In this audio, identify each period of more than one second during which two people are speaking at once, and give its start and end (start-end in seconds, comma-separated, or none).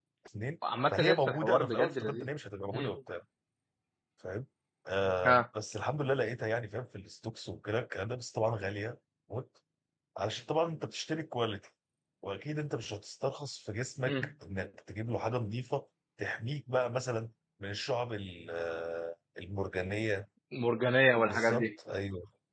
0.9-2.3